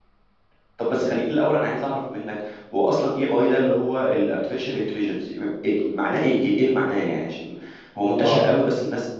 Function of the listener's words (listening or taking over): listening